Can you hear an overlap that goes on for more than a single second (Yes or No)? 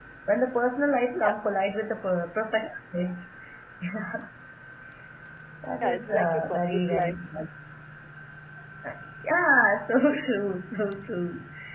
Yes